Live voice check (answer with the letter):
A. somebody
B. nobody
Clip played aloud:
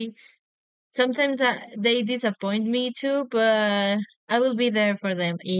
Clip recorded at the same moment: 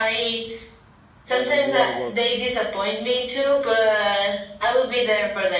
A